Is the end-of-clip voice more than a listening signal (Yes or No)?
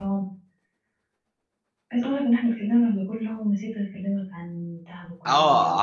Yes